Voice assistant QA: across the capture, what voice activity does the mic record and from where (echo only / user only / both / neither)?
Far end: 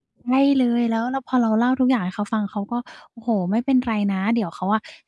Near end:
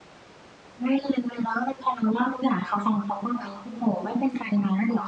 both